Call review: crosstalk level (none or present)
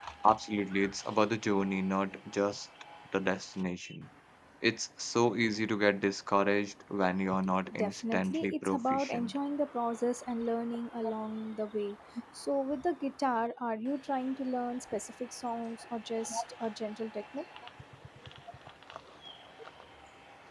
present